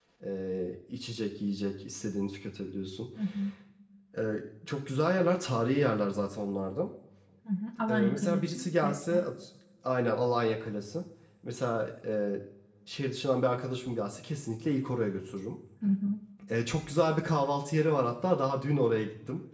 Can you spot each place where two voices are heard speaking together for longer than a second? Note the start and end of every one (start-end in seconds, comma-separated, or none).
7.9-9.2